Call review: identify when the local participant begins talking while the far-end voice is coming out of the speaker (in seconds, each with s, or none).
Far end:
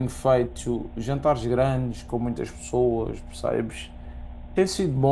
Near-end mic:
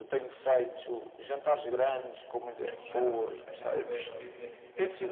1.8 s